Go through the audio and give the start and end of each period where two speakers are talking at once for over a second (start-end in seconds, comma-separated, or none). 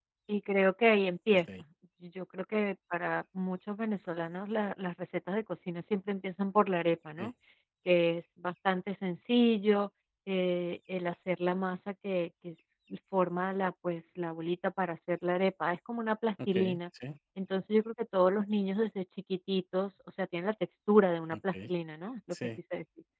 none